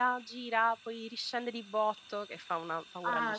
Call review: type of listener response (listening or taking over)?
taking over